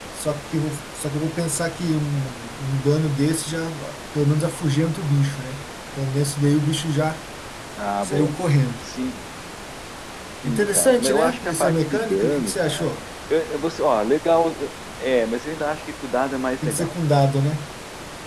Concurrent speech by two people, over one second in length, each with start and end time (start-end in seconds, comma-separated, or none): 10.4-12.9